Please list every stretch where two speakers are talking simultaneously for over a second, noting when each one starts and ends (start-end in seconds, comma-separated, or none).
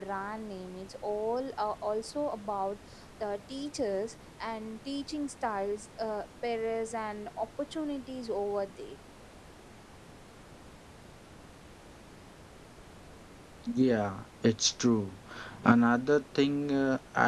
none